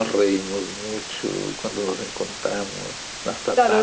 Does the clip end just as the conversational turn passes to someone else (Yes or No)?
Yes